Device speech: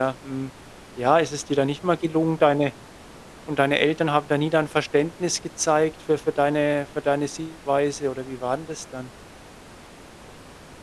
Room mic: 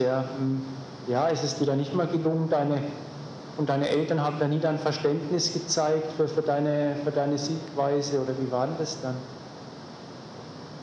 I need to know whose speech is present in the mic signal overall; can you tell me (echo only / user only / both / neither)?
echo only